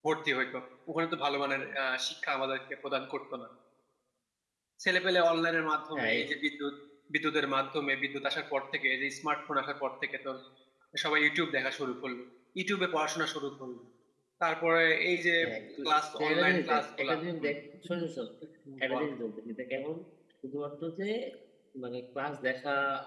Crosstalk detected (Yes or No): Yes